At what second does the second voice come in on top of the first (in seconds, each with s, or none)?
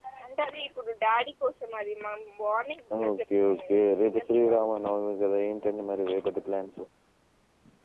2.9 s